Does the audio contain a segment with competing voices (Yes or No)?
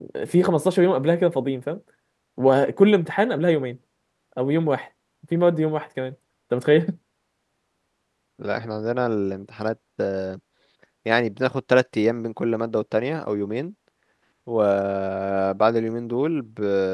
No